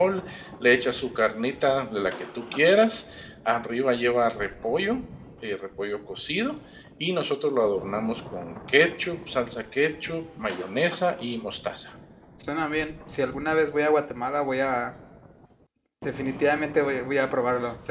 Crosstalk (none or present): none